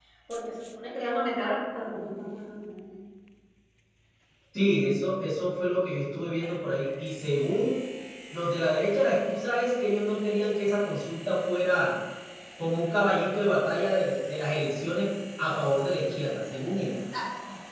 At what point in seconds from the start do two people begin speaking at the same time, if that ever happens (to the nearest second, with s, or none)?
none